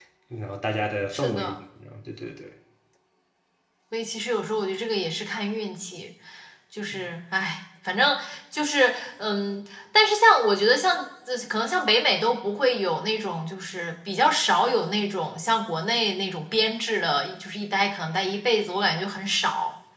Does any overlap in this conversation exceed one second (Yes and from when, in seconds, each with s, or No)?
No